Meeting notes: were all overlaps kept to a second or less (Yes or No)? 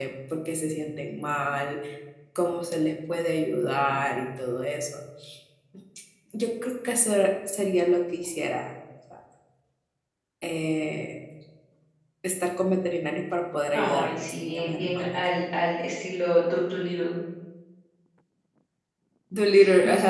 No